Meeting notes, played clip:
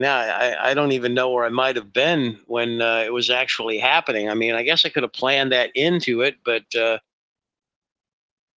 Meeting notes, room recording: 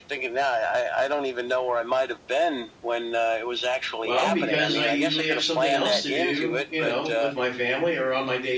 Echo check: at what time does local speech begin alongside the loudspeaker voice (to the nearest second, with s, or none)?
4 s